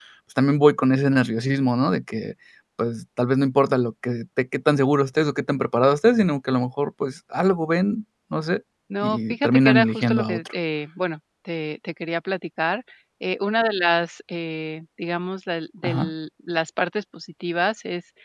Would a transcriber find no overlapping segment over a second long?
No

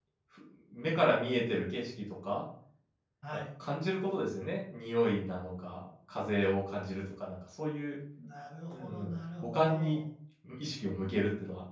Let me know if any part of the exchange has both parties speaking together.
Yes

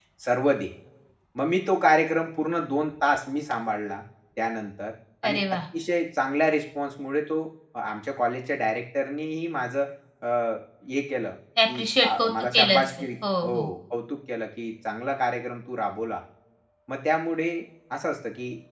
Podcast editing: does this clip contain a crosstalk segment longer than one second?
Yes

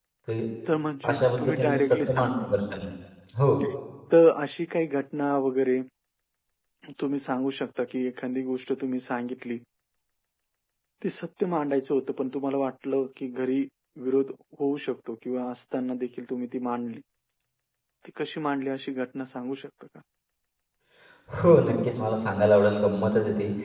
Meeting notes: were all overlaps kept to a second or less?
No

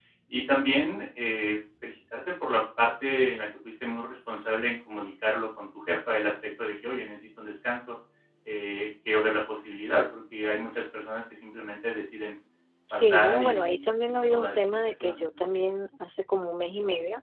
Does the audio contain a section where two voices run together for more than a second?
Yes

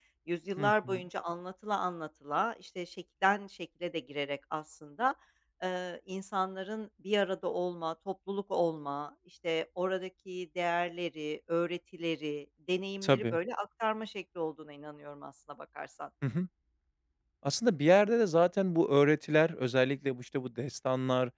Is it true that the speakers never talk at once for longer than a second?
Yes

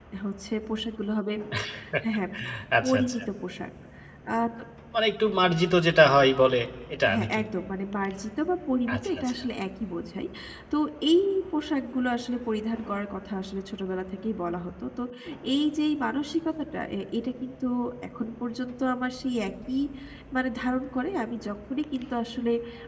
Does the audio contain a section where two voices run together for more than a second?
No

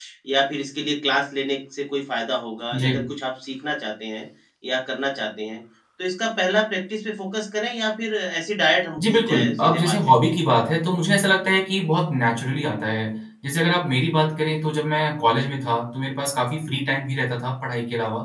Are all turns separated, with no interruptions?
No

